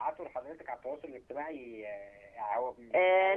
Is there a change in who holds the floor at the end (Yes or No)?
Yes